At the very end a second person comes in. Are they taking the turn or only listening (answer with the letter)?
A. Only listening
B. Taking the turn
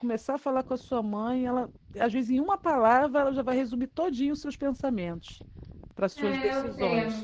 B